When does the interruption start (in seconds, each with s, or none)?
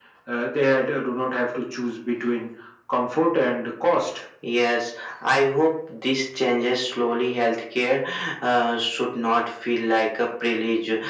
none